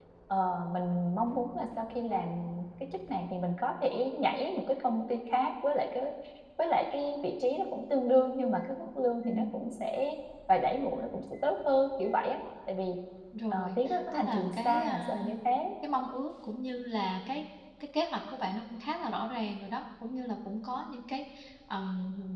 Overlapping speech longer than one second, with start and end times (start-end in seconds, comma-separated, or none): 13.5-15.3